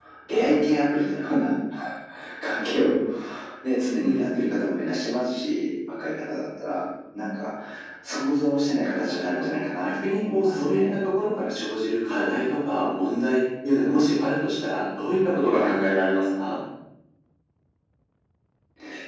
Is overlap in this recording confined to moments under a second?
No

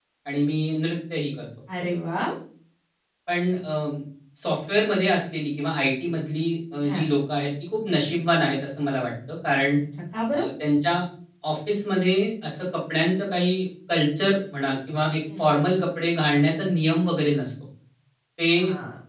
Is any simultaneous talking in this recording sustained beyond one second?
No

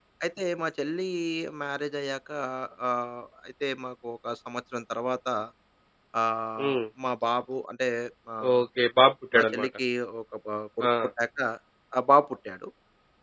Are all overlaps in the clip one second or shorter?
Yes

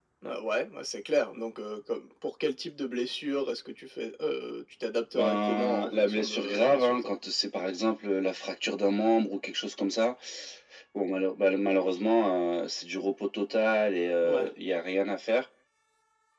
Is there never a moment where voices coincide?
No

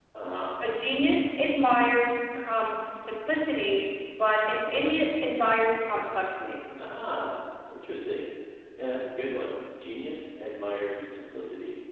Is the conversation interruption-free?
Yes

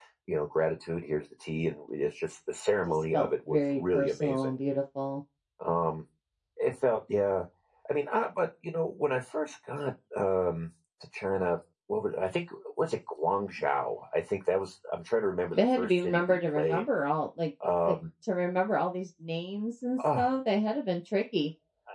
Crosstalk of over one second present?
Yes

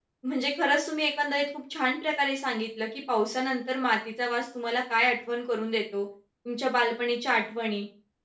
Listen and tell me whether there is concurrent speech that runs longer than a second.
No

